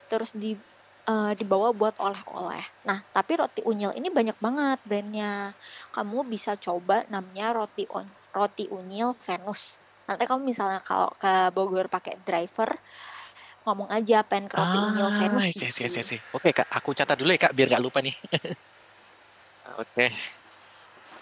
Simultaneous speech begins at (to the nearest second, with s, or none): 15 s